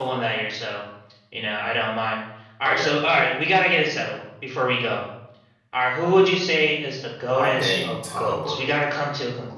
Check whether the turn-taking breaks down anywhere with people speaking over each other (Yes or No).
Yes